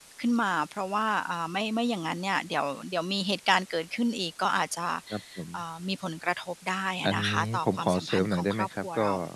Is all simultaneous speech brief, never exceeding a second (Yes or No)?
No